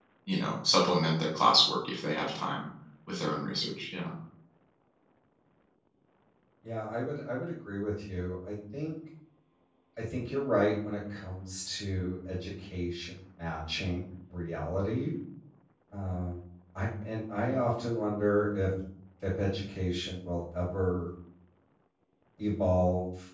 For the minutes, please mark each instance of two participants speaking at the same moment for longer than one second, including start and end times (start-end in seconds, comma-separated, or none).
none